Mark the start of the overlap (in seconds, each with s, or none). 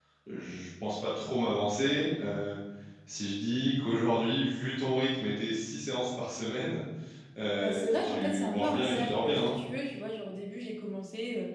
7.6 s